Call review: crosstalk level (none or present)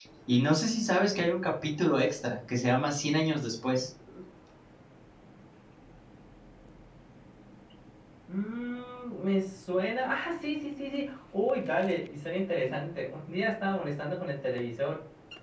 none